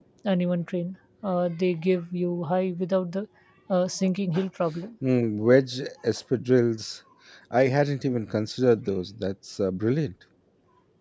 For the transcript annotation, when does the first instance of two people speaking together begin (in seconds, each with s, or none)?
none